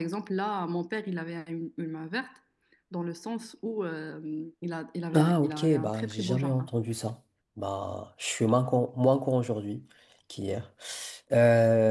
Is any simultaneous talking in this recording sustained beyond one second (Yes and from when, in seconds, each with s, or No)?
Yes, from 5.1 s